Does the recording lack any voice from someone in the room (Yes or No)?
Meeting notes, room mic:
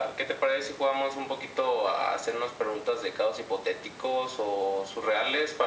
Yes